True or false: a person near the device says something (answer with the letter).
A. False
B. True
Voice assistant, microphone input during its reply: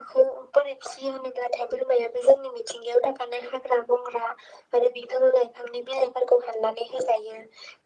A